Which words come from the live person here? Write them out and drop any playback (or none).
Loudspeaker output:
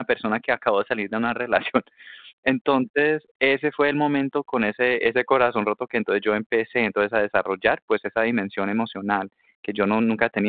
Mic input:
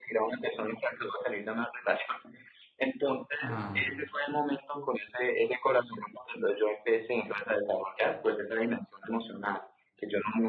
Ah,